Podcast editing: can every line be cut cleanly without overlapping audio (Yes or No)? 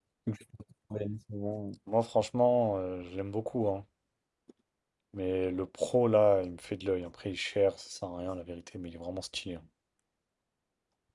Yes